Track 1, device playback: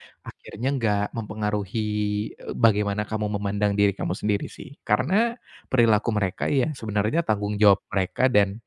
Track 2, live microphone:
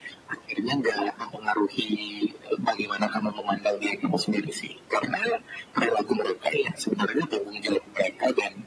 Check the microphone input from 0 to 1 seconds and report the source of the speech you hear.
echo only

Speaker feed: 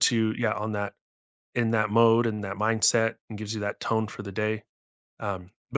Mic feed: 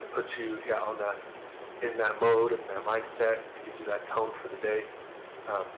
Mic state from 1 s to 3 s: echo only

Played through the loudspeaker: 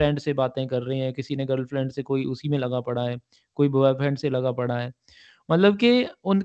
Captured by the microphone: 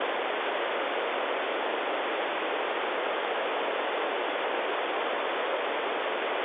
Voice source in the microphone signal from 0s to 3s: neither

